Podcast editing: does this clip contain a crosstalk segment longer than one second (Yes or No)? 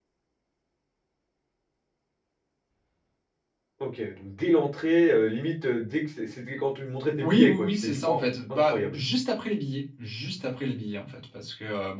Yes